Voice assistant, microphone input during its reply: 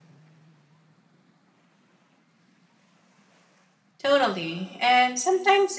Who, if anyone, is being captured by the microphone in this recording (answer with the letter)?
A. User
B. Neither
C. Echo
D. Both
A